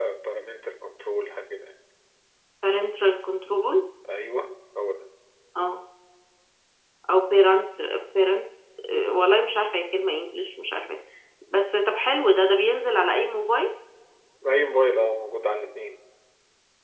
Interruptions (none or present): none